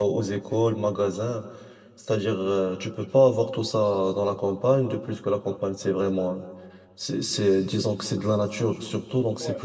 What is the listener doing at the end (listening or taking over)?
taking over